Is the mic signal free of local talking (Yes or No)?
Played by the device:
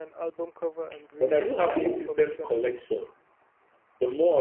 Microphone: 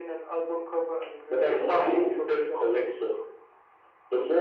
Yes